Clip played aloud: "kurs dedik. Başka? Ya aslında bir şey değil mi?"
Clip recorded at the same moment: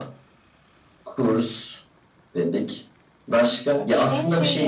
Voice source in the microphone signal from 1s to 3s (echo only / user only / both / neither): echo only